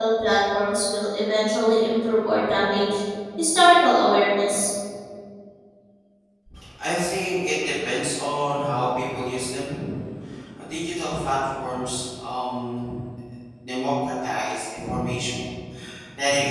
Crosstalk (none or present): none